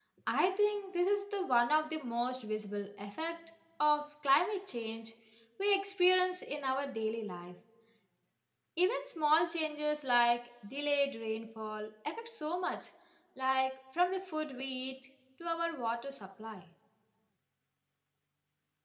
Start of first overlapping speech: none

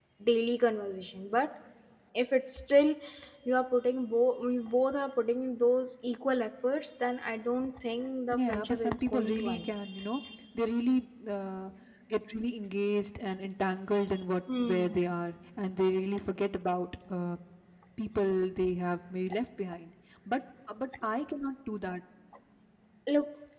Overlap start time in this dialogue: 8.3 s

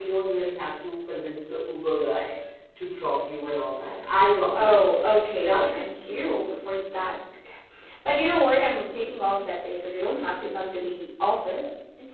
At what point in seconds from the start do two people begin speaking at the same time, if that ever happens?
4.5 s

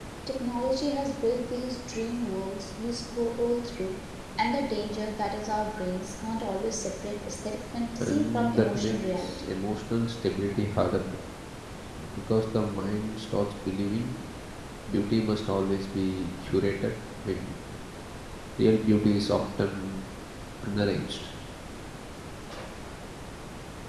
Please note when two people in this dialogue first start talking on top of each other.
8.0 s

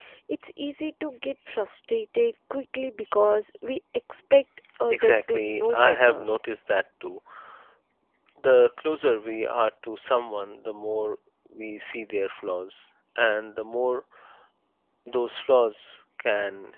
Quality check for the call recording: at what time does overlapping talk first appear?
4.9 s

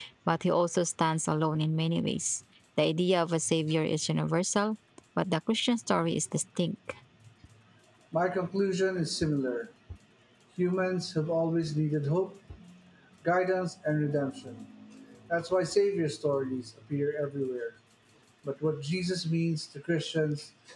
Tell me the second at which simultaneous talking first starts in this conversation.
none

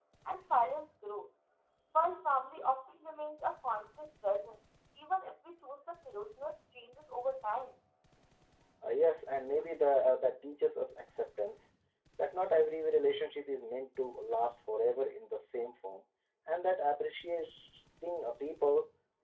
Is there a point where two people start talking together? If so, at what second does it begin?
none

